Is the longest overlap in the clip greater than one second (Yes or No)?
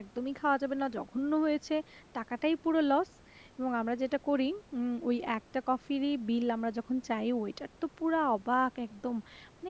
No